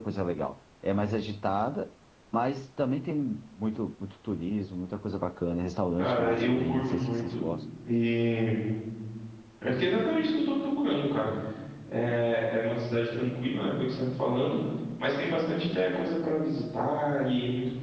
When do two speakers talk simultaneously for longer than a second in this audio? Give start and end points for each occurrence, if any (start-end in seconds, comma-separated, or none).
6.0-7.3